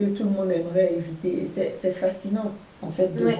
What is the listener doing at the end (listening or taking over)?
listening